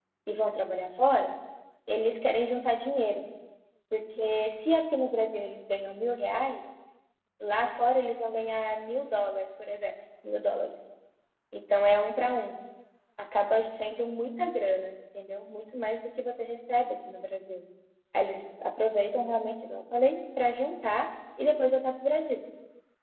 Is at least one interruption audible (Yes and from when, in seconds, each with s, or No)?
No